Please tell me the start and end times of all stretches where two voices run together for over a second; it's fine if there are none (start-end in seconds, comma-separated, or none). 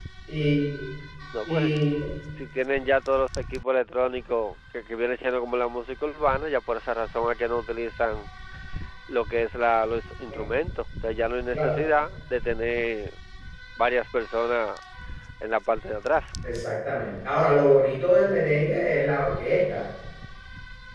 none